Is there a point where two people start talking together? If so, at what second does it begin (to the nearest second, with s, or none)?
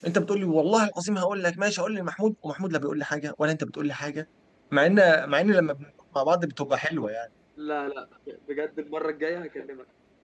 none